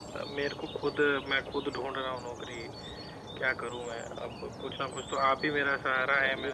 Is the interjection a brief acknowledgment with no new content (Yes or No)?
Yes